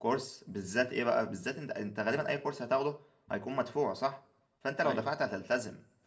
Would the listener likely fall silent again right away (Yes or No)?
Yes